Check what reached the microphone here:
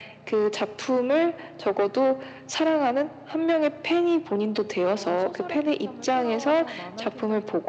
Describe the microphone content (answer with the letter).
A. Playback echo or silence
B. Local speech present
B